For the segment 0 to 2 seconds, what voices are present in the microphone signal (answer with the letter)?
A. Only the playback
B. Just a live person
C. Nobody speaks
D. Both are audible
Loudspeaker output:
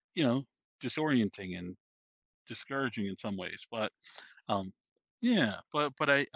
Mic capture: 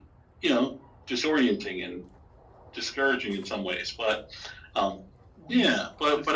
A